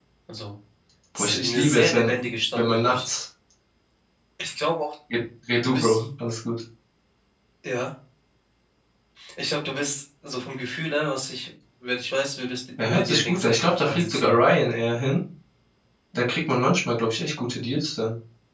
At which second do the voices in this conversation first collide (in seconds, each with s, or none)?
1.1 s